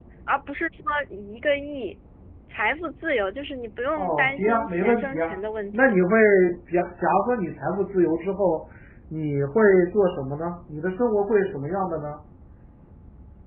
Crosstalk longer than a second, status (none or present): present